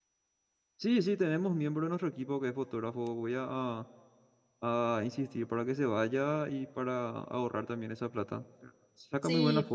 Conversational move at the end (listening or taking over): listening